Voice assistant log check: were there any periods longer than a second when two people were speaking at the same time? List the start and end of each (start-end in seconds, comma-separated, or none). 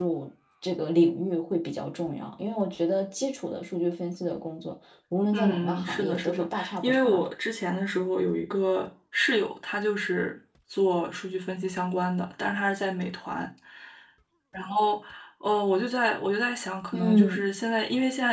5.3-7.3